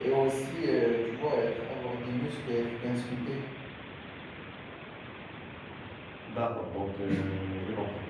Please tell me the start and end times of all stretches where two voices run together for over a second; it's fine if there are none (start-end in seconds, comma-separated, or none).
none